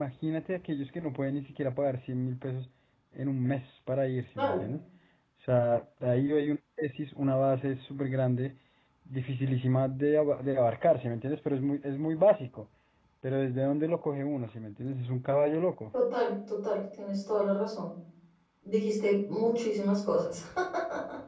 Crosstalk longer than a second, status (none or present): none